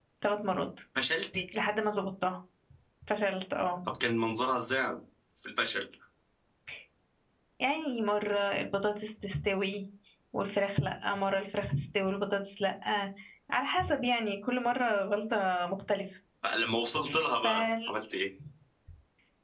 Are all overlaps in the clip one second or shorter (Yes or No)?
Yes